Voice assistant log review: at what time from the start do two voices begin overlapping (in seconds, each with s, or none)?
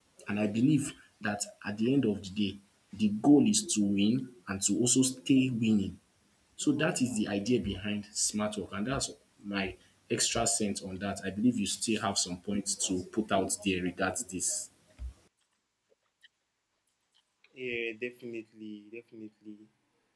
none